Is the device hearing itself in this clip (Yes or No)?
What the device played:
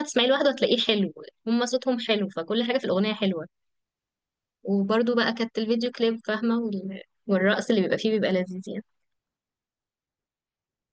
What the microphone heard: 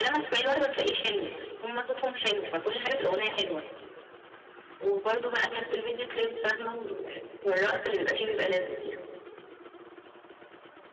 Yes